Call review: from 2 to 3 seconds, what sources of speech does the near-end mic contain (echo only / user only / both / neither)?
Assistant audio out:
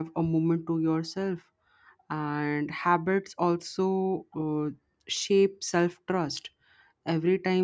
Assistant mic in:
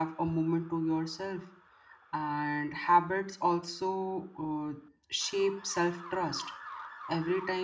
echo only